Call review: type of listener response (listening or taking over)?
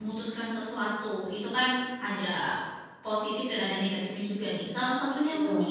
listening